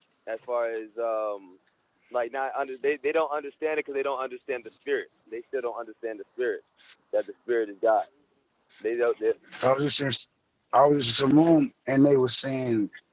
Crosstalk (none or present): none